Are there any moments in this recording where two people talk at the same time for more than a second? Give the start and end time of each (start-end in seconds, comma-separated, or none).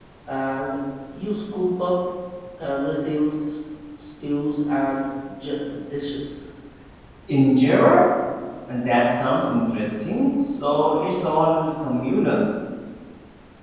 none